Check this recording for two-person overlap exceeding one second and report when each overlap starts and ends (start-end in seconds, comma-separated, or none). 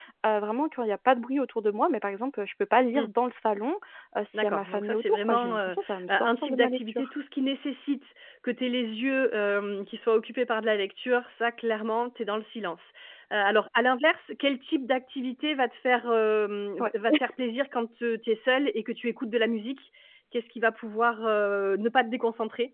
4.3-7.1